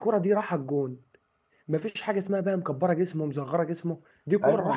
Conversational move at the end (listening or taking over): taking over